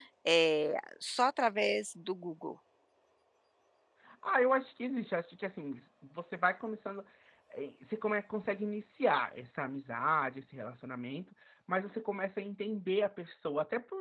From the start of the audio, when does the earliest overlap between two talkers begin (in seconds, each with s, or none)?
none